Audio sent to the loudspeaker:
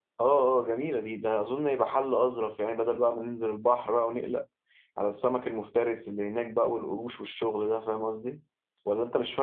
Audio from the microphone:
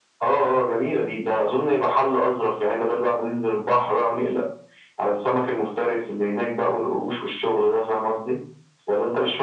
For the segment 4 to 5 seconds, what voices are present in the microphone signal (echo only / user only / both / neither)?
echo only